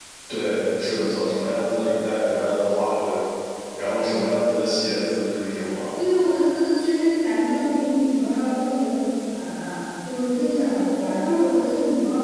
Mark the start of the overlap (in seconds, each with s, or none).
none